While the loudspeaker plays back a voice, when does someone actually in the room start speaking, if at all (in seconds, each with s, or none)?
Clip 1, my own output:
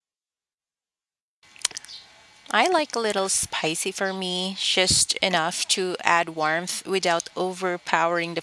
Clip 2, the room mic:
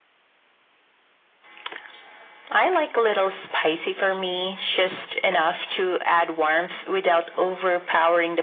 none